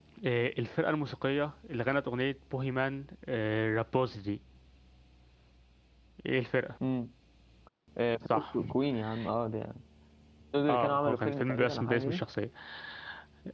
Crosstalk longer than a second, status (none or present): present